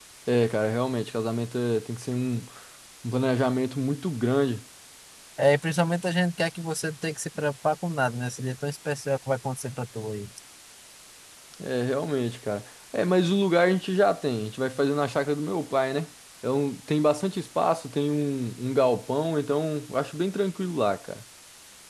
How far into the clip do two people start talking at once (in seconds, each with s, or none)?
none